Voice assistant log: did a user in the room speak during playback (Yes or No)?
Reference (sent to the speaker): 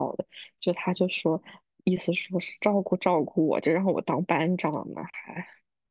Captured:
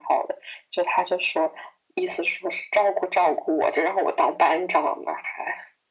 No